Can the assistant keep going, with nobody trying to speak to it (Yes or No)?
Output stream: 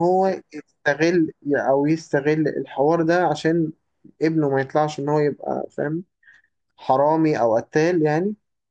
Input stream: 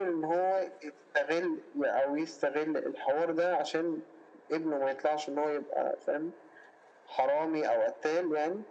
Yes